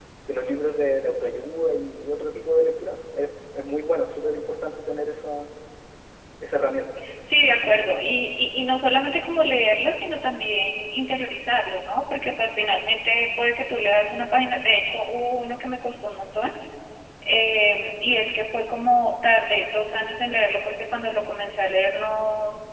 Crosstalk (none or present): none